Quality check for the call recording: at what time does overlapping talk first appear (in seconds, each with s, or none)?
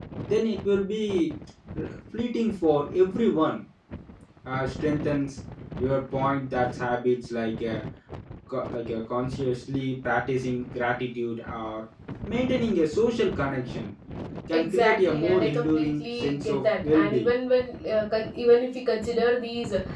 14.5 s